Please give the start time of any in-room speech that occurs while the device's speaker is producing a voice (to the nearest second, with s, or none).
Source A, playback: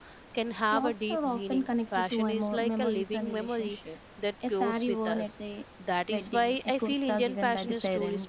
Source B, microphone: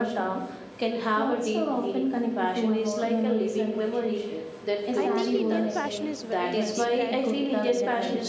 5 s